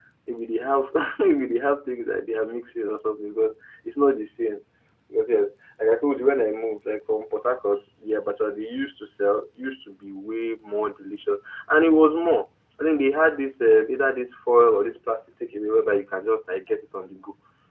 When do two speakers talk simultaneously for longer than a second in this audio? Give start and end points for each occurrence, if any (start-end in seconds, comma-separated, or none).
none